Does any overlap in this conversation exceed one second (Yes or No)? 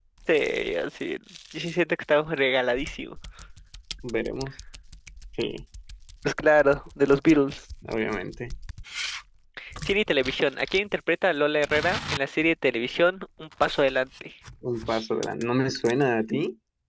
No